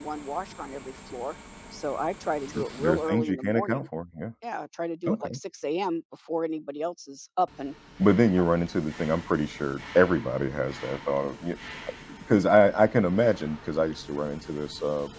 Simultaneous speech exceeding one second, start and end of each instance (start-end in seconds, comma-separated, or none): 2.5-3.9